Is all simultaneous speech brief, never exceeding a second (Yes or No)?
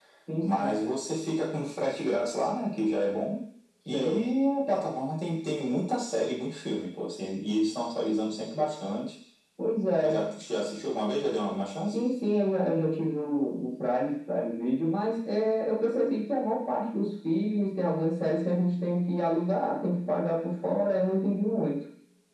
Yes